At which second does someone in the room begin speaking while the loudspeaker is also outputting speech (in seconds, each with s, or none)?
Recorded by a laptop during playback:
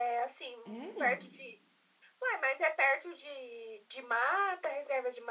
0.6 s